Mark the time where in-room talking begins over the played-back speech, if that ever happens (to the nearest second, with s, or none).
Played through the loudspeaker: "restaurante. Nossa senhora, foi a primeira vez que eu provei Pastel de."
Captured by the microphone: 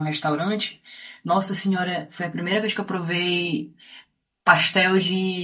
none